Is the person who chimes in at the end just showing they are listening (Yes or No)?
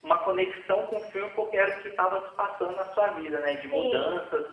No